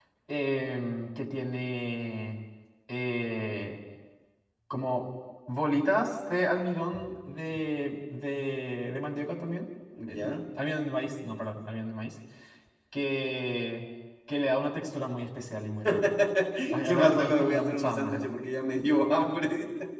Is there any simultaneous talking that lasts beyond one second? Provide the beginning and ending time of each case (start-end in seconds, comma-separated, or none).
16.8-18.2